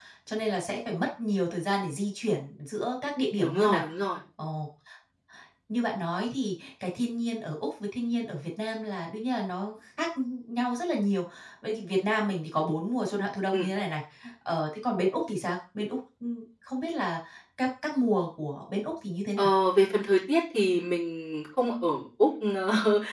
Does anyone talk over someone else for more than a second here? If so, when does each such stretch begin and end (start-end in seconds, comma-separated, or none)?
none